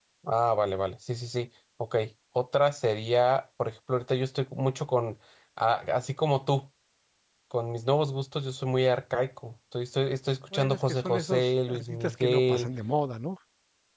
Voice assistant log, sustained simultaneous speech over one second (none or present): present